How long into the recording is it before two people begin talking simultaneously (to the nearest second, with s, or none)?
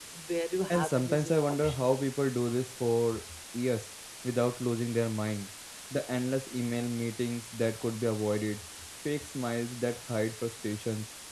1 s